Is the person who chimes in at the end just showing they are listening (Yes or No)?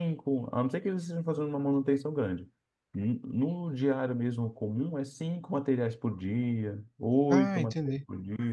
Yes